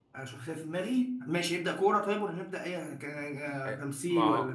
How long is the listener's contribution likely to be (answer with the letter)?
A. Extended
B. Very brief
A